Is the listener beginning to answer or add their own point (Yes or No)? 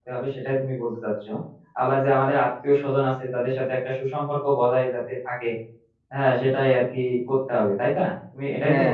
Yes